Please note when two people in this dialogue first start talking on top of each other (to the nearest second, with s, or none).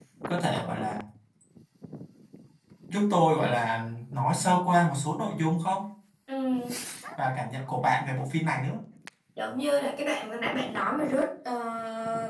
none